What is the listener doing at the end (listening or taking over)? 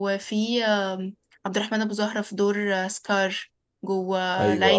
listening